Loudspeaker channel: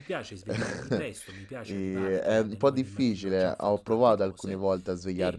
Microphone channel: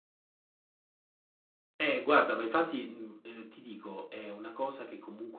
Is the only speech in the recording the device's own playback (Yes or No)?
No